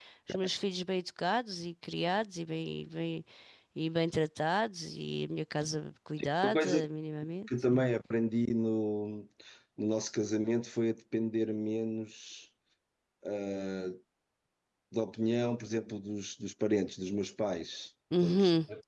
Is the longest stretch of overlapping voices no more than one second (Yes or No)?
Yes